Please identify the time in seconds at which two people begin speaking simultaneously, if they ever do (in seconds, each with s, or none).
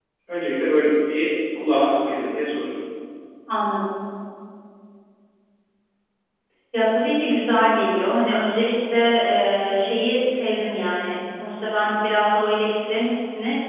none